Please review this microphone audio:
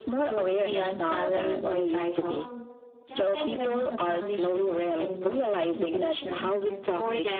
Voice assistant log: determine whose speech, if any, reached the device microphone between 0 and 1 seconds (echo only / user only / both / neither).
echo only